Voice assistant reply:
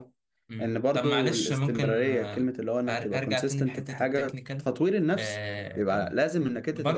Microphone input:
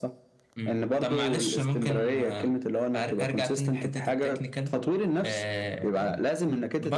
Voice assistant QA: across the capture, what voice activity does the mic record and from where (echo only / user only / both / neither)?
echo only